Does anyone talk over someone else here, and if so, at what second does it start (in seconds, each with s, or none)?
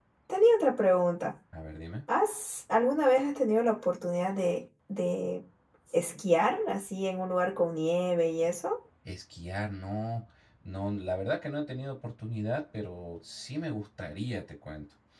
none